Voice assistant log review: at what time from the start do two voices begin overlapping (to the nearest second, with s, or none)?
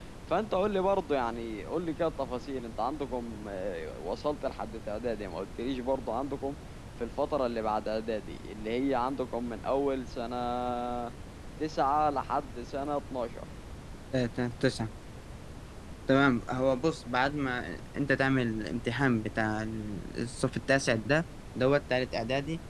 none